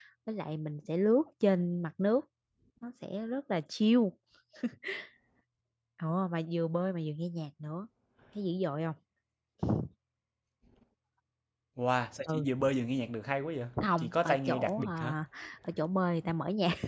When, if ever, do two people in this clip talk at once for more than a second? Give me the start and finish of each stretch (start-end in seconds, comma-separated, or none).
13.8-15.1